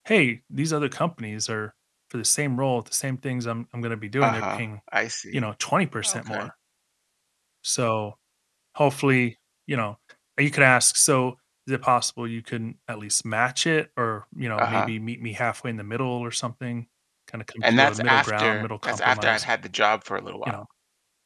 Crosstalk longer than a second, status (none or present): present